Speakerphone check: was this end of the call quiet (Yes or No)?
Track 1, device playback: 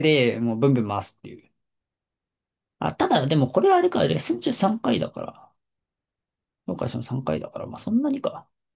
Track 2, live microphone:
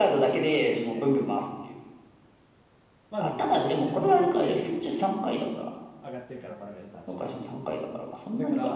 No